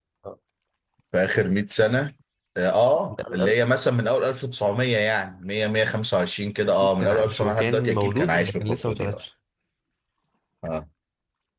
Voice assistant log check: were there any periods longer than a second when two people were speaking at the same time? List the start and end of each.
6.7-9.2

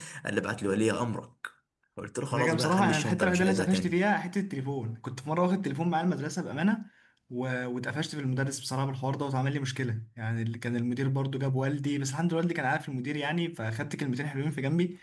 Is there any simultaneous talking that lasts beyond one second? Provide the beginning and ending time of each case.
2.3-4.0

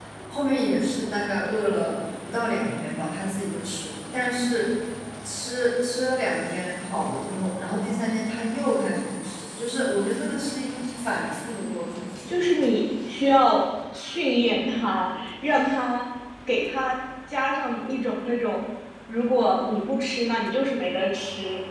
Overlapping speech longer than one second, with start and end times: none

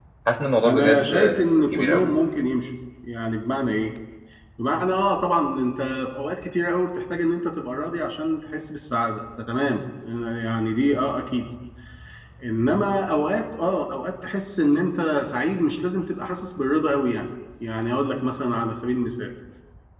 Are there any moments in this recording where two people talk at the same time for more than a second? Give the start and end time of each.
0.6-2.1

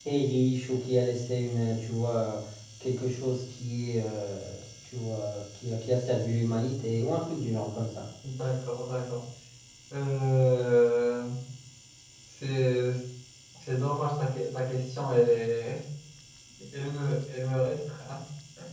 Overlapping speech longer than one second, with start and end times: none

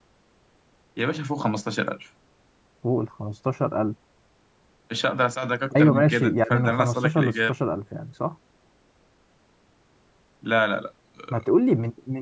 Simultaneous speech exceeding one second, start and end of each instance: 5.8-7.5

